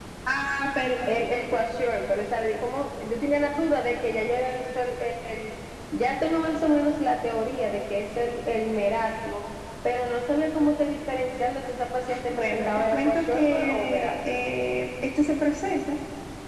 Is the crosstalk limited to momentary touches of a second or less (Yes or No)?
No